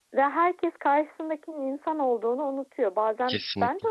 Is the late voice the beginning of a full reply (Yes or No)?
No